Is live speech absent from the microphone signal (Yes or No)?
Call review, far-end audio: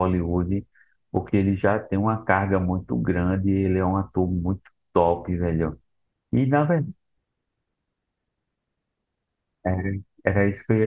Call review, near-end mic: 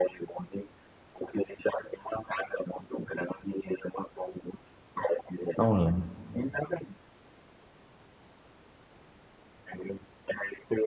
No